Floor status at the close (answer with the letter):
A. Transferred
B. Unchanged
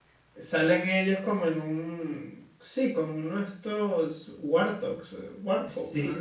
A